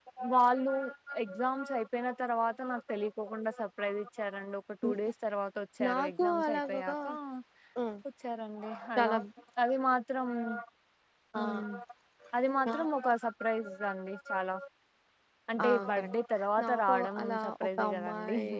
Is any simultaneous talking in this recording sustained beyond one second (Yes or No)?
Yes